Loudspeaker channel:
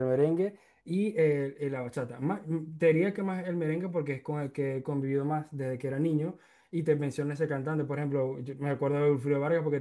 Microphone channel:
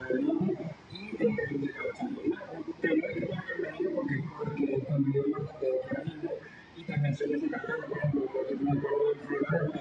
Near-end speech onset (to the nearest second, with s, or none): none